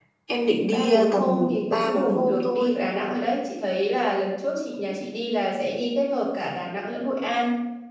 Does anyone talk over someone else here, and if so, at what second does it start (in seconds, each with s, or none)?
0.7 s